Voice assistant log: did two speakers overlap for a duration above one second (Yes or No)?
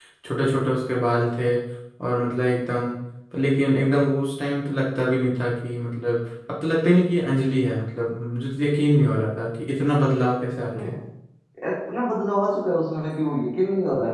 No